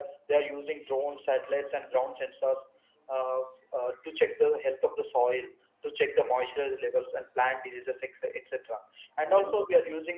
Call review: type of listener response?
listening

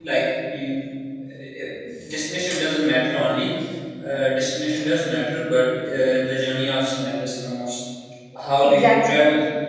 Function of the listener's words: listening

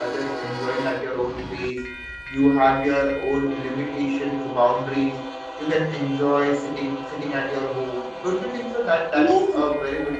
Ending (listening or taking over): taking over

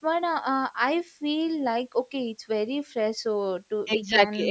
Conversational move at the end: taking over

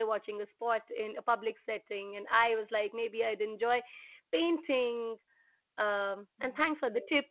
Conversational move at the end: listening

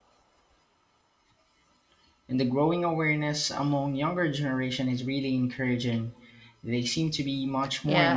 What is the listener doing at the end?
taking over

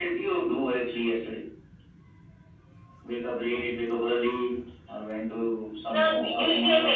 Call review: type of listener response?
taking over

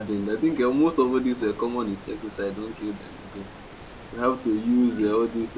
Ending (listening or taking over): listening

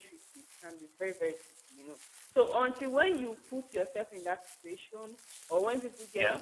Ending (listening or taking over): listening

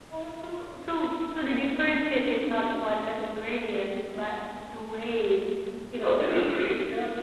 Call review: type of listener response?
taking over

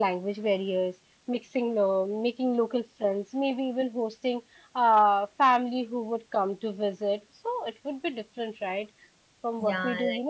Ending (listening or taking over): listening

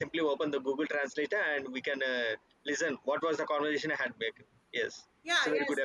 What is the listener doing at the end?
taking over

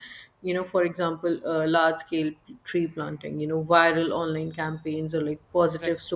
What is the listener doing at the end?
listening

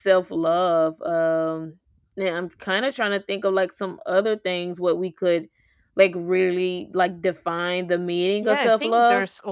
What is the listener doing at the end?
taking over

